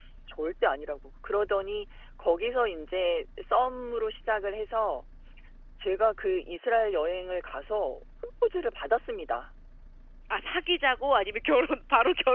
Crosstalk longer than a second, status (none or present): none